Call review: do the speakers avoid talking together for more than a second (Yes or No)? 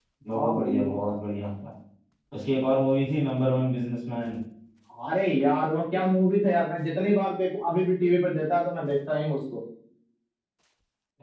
Yes